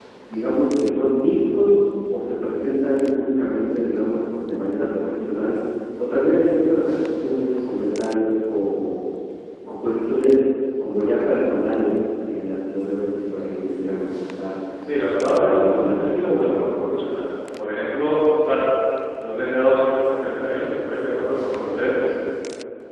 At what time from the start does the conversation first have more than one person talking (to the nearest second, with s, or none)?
15 s